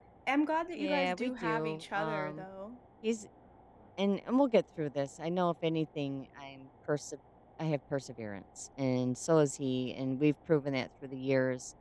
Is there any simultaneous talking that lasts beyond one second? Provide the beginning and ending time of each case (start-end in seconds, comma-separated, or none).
0.8-2.4